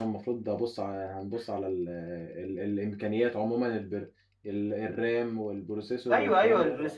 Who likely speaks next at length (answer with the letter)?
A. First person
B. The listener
B